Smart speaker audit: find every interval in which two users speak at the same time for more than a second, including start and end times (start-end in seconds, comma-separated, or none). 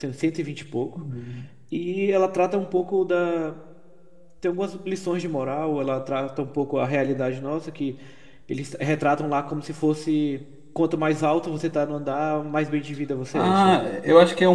none